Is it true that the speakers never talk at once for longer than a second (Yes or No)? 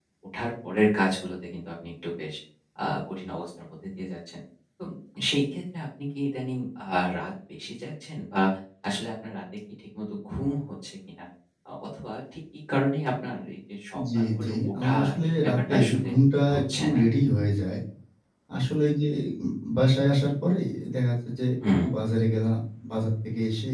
No